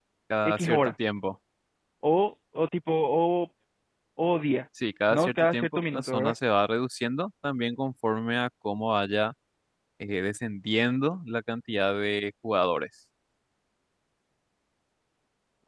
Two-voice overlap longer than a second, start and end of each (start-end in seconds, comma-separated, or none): 5.1-6.3